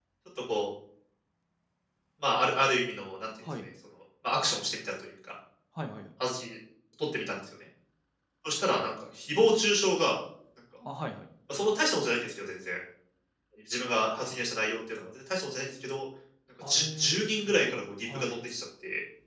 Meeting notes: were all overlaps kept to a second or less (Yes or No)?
No